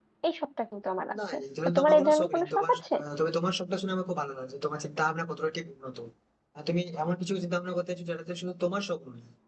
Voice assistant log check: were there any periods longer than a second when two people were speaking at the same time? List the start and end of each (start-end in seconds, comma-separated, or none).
1.3-3.0